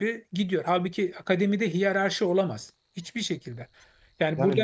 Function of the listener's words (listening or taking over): listening